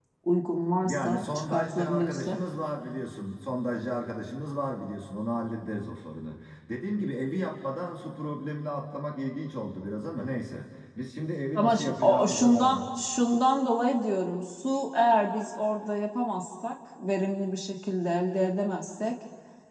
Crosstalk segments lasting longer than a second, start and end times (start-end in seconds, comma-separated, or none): 0.8-2.4, 11.6-12.8